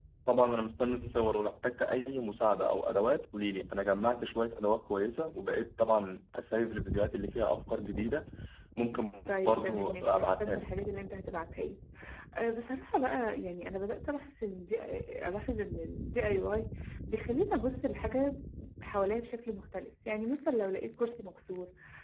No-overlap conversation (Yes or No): No